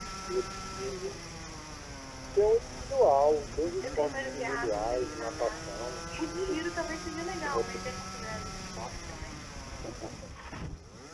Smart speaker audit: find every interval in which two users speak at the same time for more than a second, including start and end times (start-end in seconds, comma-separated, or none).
3.8-5.7